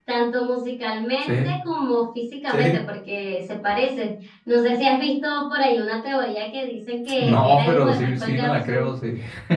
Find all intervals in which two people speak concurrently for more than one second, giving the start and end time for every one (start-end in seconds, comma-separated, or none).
7.2-8.9